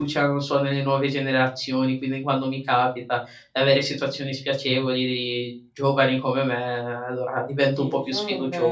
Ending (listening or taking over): taking over